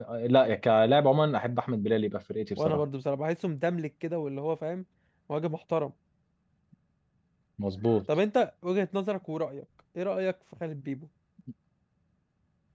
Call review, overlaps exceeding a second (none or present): none